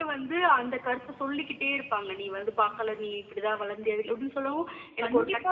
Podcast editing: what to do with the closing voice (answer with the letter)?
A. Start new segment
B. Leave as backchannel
A